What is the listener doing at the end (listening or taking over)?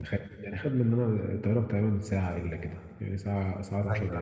taking over